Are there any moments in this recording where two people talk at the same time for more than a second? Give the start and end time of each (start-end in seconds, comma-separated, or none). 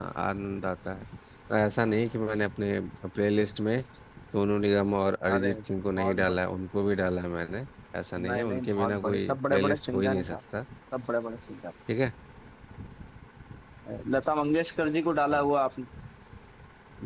8.3-10.4